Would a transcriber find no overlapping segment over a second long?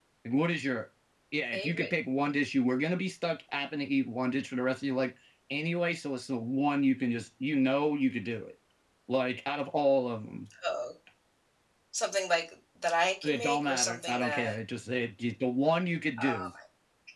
No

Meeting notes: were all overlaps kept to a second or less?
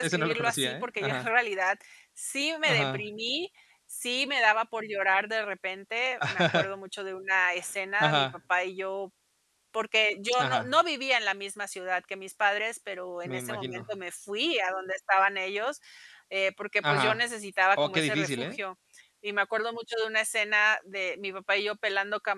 No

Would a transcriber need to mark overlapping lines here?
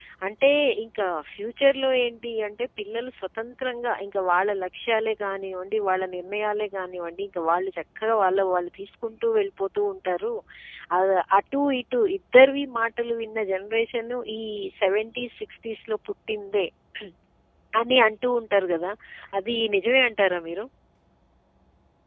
No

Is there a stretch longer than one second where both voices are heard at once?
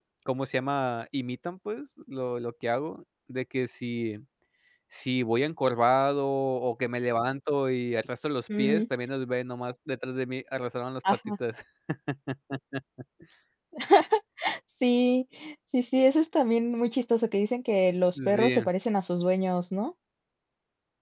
No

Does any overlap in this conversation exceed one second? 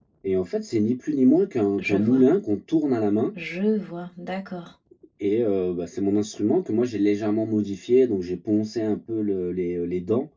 No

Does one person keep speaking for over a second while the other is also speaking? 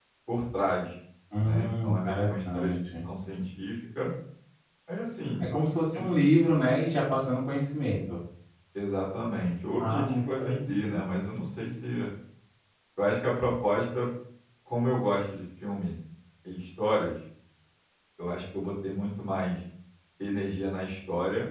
Yes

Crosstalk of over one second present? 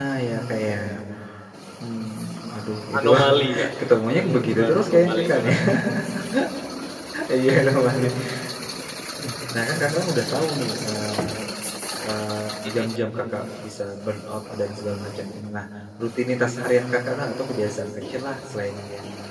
Yes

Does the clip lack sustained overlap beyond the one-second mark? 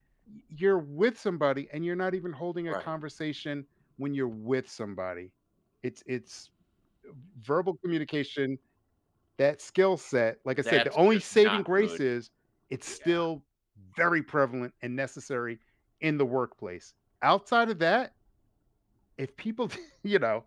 No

